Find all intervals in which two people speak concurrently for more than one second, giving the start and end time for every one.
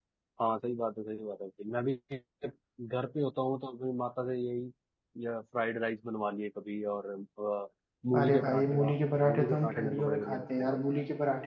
8.1-10.8

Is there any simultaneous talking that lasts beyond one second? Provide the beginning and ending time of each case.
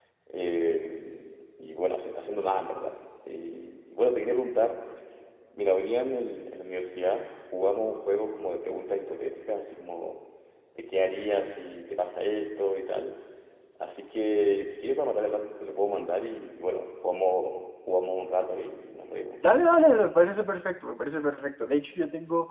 none

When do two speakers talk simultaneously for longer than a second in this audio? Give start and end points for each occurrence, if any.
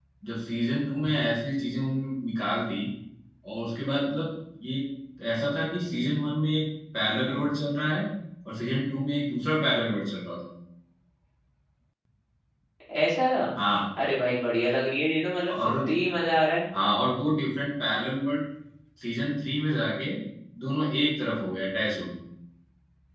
none

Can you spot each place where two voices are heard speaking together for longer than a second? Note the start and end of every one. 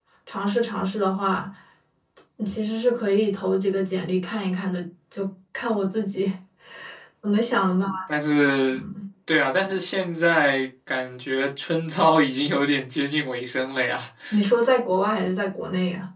none

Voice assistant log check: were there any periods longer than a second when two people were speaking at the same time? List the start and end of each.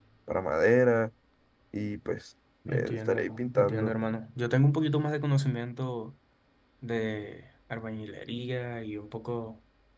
2.7-4.0

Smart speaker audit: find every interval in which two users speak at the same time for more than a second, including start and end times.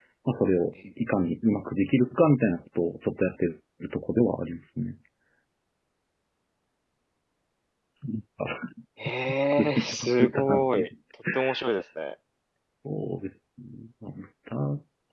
9.6-10.8

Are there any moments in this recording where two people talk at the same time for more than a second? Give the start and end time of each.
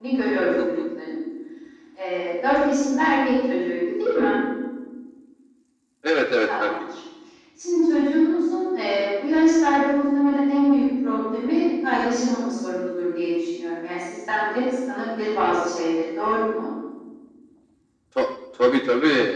none

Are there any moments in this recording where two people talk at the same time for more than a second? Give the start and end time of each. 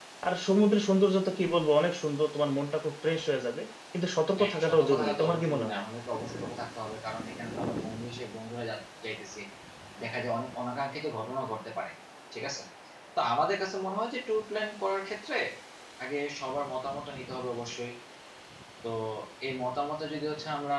4.4-5.8

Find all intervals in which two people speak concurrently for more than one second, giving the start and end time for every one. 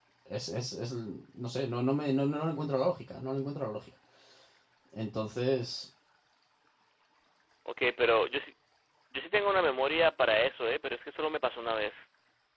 none

